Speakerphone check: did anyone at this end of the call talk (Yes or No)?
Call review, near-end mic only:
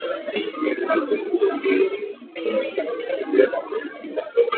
No